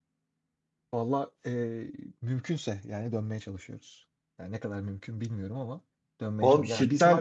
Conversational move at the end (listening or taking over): taking over